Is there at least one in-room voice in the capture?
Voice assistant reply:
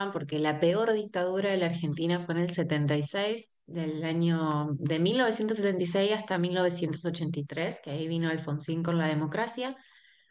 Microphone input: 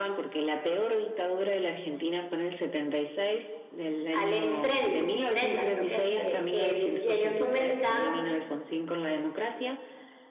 Yes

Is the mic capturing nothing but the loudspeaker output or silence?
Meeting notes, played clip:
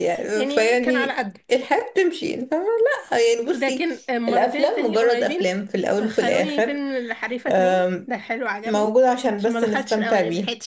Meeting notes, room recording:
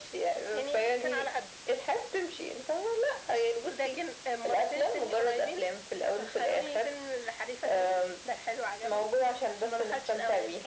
Yes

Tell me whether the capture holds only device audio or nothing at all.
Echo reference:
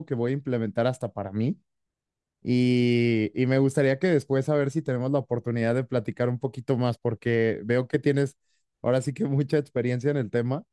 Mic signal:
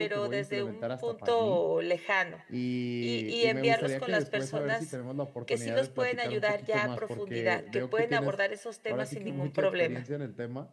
No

